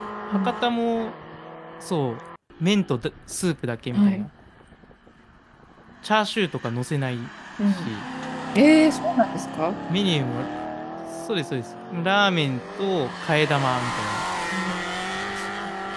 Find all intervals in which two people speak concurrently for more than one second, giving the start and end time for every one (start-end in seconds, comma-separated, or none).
none